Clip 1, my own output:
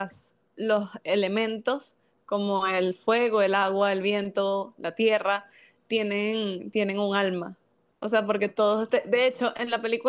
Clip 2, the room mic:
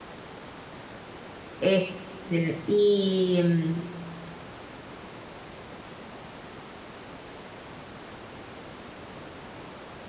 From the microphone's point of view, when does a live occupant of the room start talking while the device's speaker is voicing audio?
1.6 s

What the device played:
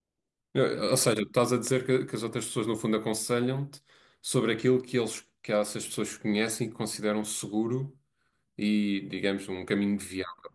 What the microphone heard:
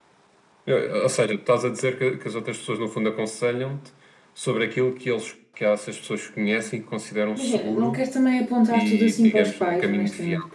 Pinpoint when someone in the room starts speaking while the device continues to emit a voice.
7.3 s

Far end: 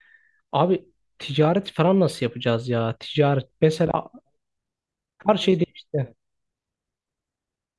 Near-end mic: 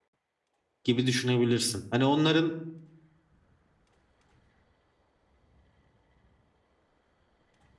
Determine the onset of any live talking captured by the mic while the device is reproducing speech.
0.8 s

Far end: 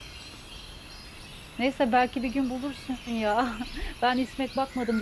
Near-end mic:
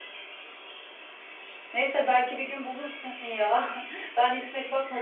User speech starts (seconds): none

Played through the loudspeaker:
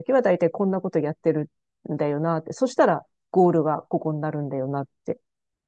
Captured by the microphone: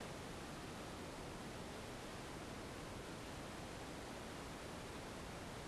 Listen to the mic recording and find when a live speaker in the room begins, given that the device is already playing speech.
none

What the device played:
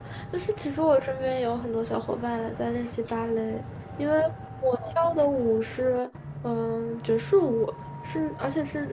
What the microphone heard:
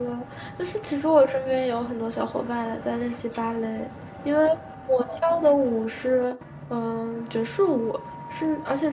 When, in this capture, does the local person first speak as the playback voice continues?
none

